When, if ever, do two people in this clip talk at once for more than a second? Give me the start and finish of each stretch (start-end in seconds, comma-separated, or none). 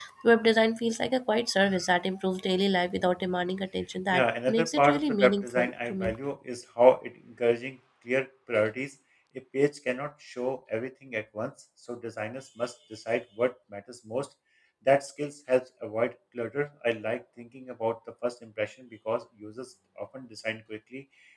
4.1-6.2